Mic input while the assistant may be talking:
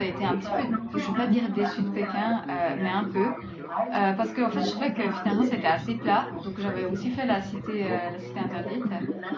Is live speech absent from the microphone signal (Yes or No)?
No